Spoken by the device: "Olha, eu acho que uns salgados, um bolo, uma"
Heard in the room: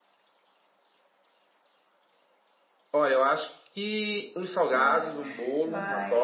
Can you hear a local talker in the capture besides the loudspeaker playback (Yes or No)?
Yes